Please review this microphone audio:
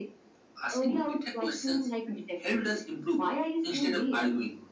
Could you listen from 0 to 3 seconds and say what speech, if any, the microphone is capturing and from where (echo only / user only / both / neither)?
echo only